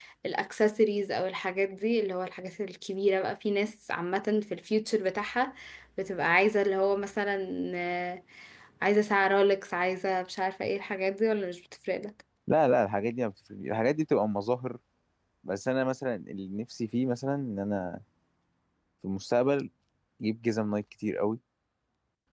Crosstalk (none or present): none